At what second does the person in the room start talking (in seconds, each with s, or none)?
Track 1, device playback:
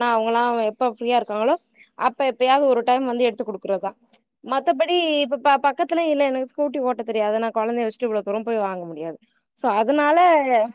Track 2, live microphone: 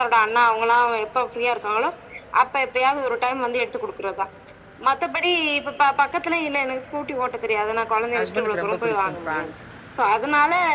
8.2 s